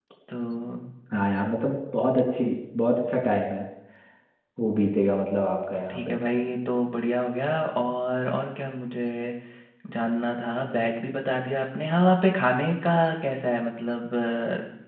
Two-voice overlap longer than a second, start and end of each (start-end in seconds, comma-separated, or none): none